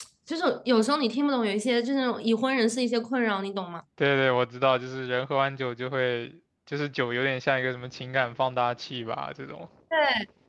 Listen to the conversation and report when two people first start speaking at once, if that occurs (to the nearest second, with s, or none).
none